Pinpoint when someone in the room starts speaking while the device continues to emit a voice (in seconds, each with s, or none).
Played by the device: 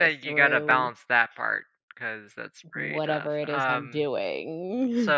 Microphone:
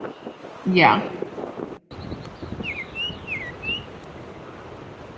0.6 s